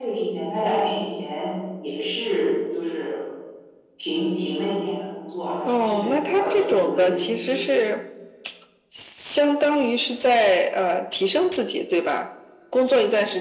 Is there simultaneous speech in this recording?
Yes, from 5.7 s

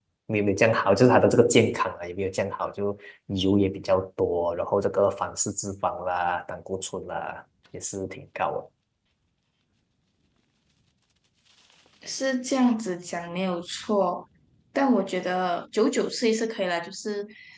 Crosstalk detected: No

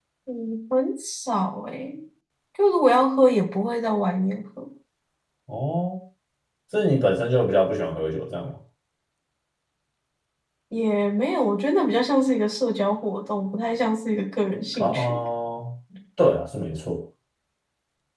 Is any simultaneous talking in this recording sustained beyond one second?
No

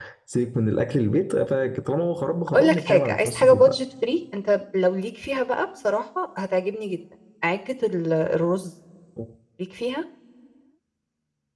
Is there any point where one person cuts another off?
Yes, from 2.5 s

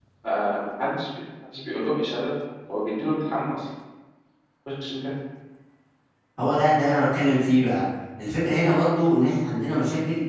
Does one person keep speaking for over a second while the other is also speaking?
No

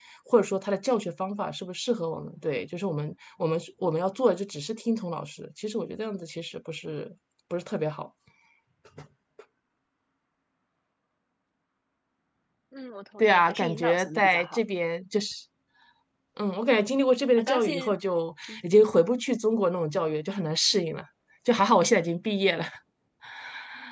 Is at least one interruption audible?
Yes, from 13.2 s

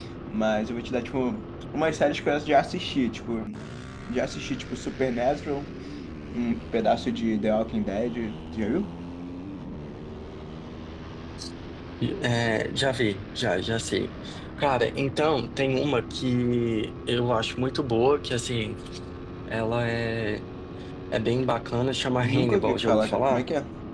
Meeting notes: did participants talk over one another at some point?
Yes, from 22.2 s

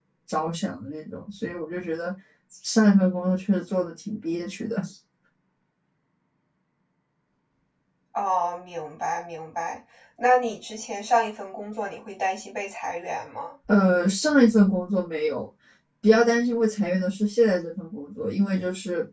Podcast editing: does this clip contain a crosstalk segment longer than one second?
No

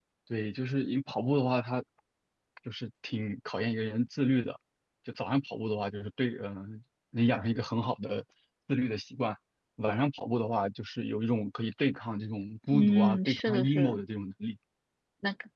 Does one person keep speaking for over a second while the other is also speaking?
Yes, from 12.7 s

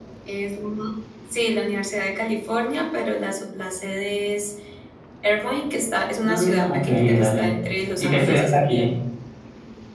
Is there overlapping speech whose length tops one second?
Yes, from 6.2 s

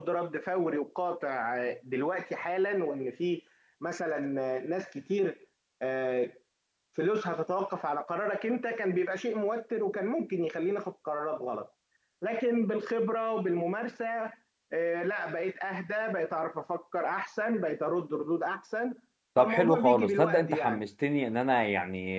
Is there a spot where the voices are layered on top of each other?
Yes, from 19.4 s

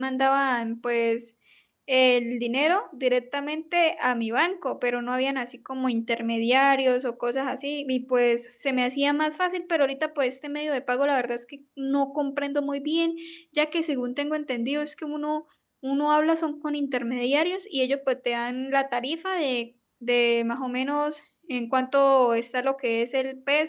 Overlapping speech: No

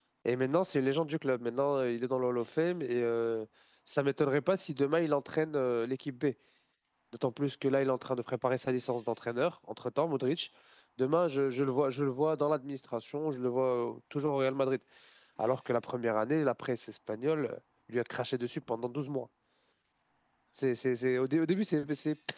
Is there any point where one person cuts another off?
No

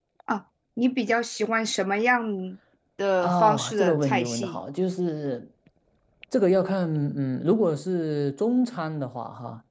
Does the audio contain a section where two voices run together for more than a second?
Yes, from 3.2 s

